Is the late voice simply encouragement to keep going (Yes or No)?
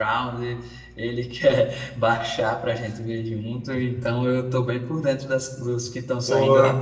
Yes